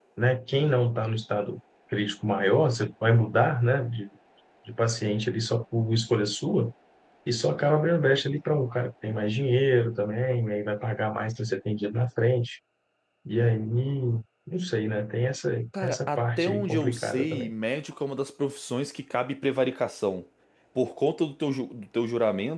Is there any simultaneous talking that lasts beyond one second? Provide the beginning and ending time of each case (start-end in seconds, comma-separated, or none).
15.8-17.5